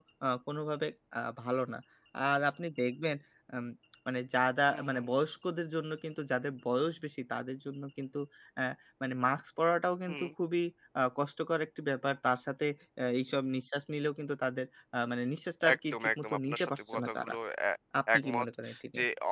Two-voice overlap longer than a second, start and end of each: 15.7-17.3

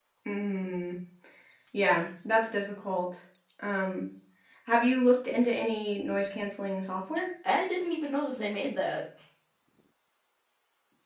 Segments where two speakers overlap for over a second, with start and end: none

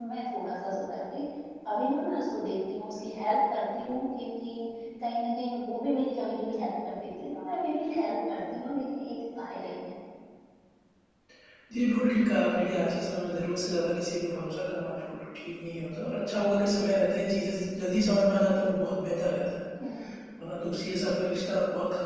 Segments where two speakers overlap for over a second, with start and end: none

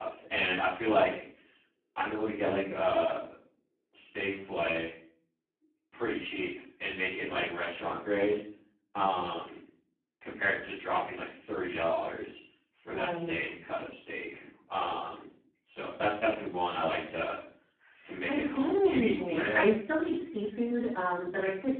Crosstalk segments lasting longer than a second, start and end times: 18.3-19.7

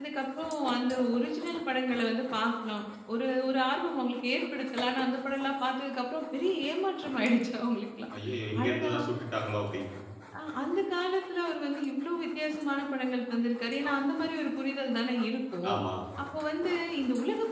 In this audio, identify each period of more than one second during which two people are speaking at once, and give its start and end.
none

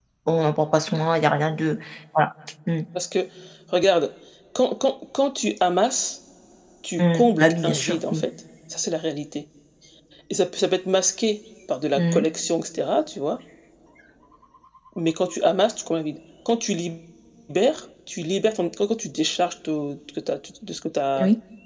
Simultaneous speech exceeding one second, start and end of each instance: 7.0-8.3

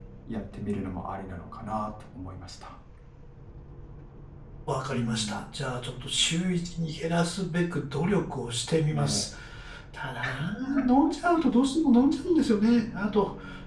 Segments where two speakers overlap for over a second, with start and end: none

